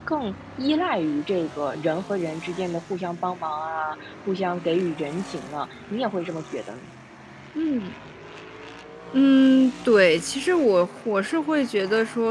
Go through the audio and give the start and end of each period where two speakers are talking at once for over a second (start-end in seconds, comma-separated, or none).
none